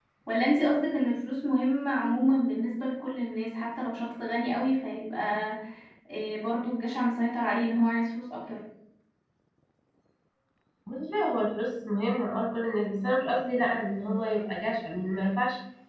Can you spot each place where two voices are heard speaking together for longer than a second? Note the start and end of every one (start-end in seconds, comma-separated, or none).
none